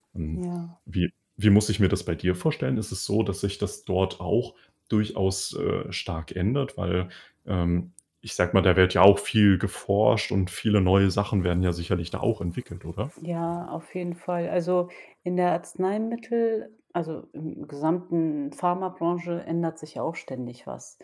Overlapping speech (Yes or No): No